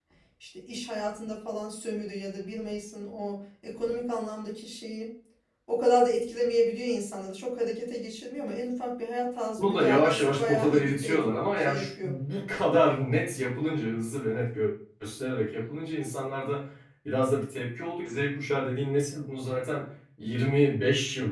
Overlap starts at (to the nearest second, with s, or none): 10 s